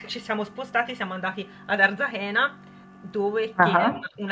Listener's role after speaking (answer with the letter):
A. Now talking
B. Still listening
B